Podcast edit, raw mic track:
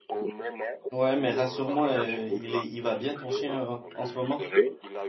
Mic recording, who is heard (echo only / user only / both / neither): both